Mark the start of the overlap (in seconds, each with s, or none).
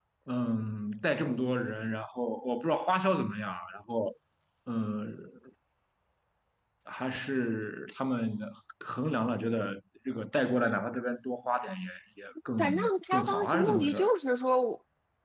12.6 s